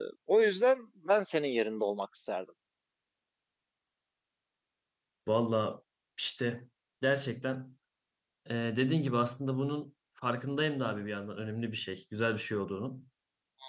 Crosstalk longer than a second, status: none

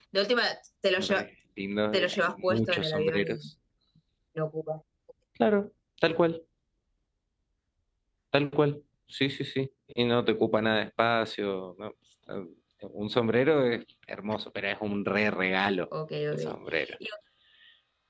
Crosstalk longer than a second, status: present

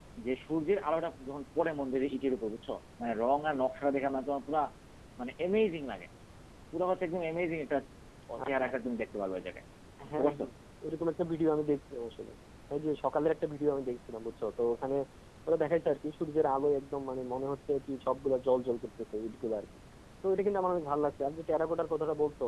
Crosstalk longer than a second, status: none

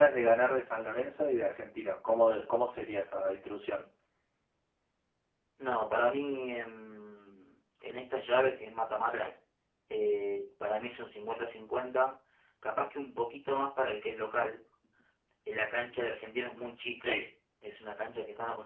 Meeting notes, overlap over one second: none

